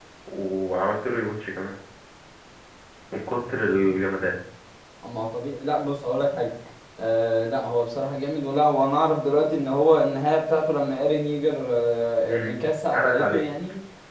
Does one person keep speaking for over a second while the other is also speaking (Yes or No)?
No